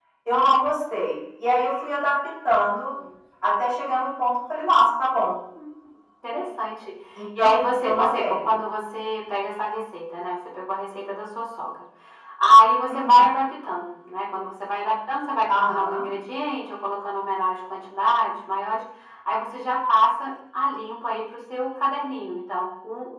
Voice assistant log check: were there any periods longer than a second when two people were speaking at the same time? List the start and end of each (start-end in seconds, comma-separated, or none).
7.4-8.6